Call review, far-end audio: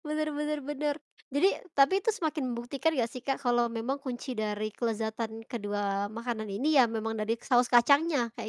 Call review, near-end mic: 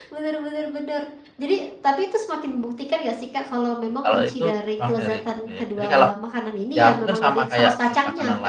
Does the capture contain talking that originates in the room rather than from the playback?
Yes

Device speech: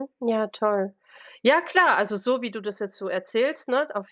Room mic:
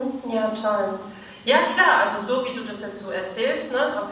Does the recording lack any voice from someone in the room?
Yes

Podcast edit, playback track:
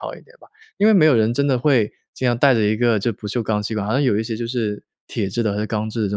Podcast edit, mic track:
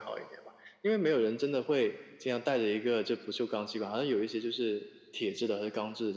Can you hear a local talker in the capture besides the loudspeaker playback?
No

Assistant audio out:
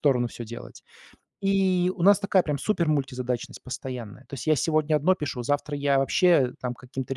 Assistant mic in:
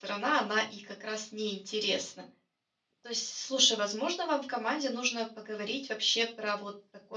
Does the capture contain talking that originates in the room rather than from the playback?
Yes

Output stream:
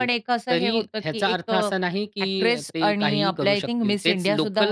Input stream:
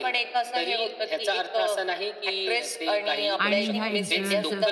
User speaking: Yes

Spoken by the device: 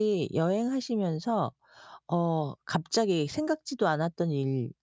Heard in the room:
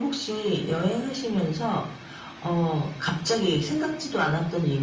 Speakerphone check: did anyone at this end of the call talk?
No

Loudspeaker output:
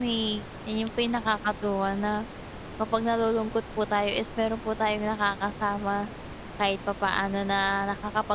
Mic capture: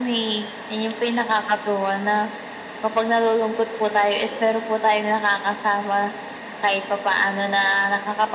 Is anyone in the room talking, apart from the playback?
No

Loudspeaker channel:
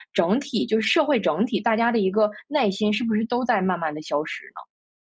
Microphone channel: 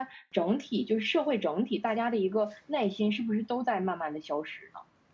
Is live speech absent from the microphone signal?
Yes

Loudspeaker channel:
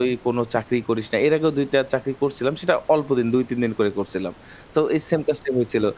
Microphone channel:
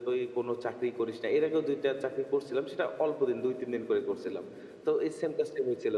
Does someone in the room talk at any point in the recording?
No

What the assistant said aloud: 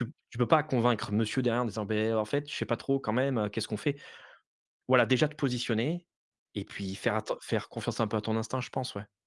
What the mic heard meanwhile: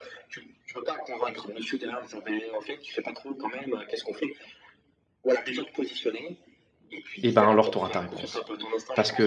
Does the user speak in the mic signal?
Yes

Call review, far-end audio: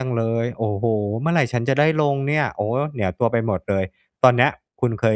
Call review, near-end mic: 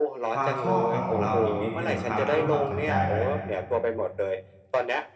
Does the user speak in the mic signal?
Yes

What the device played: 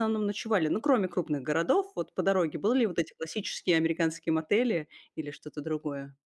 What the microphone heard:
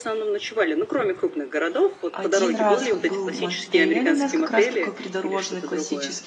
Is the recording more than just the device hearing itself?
Yes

